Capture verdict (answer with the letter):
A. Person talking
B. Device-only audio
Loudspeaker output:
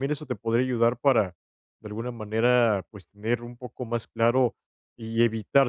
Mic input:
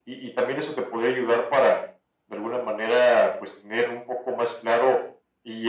B